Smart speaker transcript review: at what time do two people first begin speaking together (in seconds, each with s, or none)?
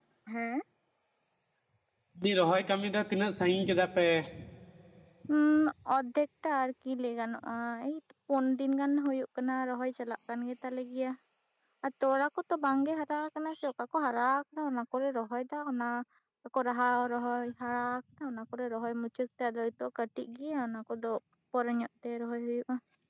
none